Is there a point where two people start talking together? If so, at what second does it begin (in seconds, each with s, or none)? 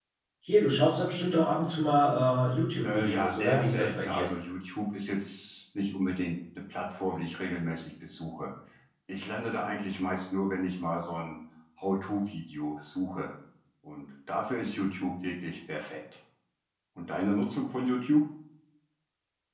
2.8 s